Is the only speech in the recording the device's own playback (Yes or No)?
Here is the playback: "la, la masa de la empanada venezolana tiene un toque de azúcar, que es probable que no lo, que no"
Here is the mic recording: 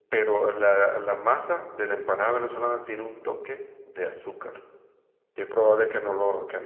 Yes